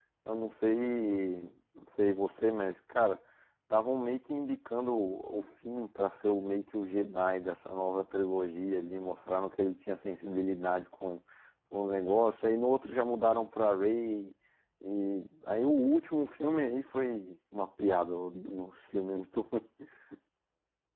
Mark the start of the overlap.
none

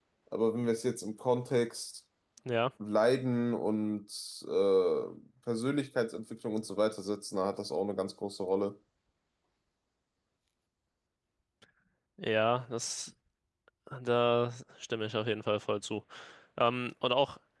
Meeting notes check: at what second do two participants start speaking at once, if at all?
none

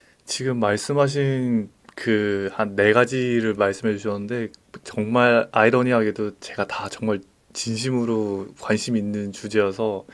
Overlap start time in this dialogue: none

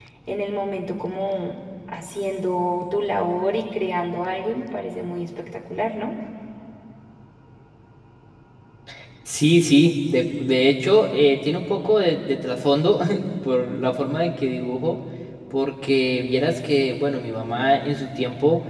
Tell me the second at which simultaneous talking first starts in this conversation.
none

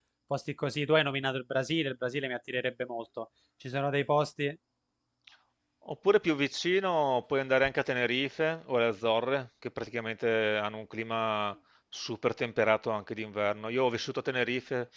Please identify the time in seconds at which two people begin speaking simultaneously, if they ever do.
none

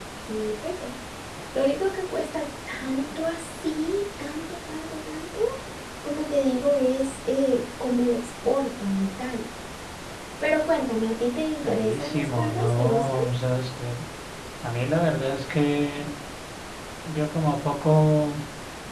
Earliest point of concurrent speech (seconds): 12 s

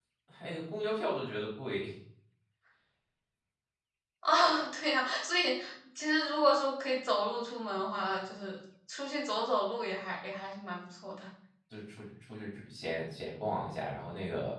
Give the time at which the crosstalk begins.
none

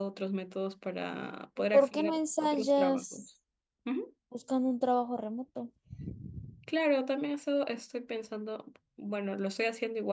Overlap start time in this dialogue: 2 s

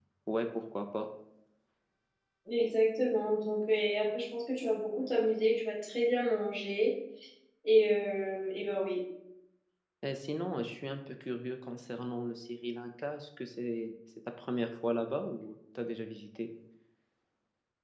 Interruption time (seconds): none

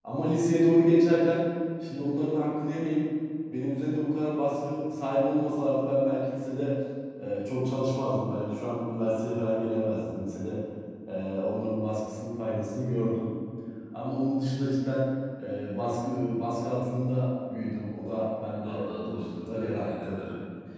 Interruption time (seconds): 19 s

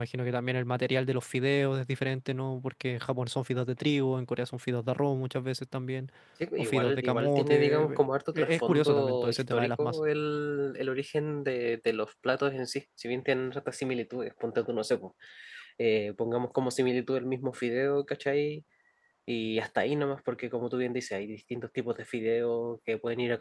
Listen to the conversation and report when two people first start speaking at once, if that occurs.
7 s

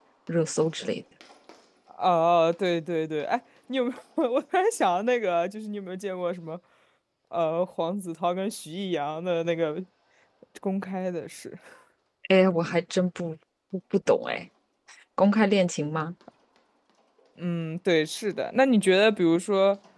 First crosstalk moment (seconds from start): none

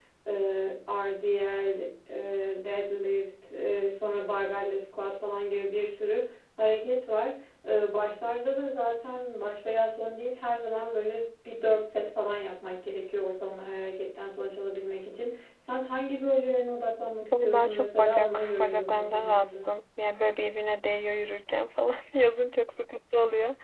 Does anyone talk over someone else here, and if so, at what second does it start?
17 s

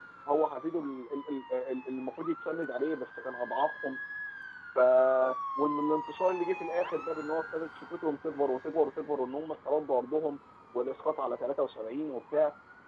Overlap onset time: none

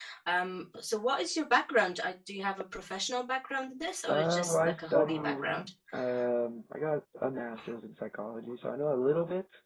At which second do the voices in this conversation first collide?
4 s

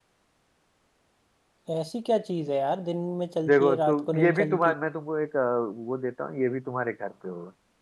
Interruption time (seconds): 3 s

